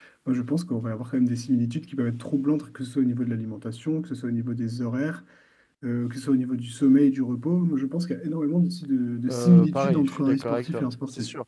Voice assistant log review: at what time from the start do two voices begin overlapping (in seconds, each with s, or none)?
9.3 s